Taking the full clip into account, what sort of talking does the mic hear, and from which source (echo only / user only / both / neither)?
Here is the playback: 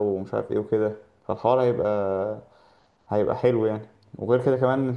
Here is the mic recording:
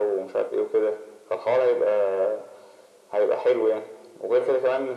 echo only